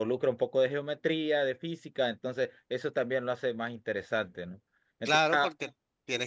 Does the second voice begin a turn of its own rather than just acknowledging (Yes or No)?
Yes